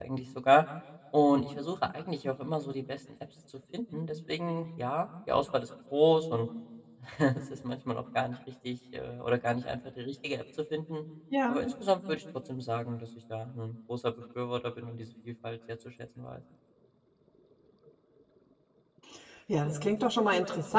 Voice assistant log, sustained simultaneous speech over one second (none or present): none